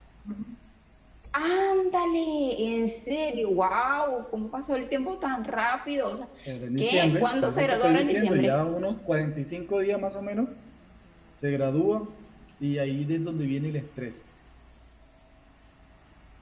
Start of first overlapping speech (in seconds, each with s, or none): 6.8 s